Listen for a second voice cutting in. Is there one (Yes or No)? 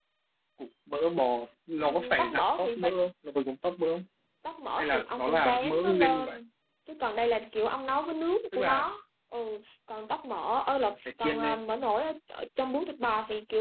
Yes